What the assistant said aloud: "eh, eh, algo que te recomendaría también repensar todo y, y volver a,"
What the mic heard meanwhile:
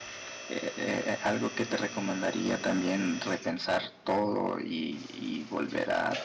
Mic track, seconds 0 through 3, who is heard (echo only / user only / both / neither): echo only